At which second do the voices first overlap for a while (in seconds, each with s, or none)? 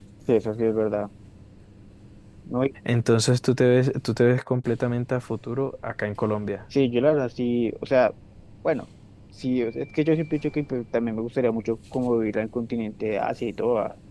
none